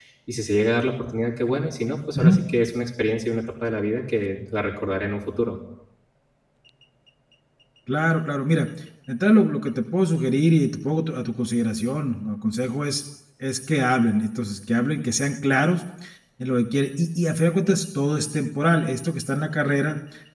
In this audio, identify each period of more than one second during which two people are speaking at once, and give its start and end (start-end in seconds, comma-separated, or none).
none